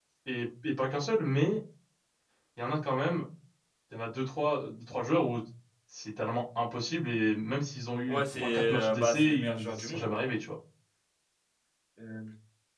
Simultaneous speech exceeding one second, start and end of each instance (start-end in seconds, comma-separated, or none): 8.1-10.1